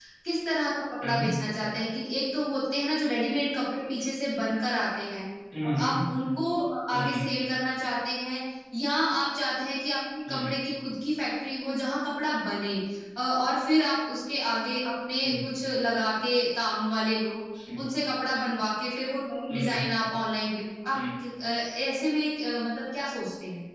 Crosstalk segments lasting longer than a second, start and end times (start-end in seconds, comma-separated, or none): none